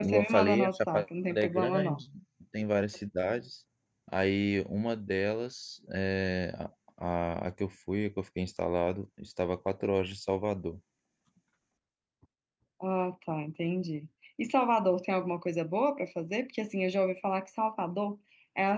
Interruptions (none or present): present